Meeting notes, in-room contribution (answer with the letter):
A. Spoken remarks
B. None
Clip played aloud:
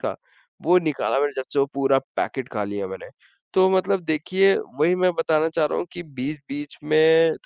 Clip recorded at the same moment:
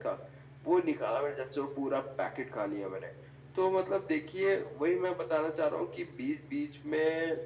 B